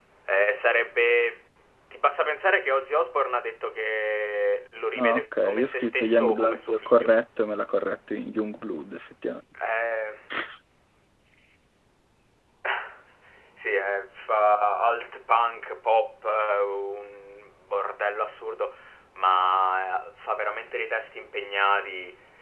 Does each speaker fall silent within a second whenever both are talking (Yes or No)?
No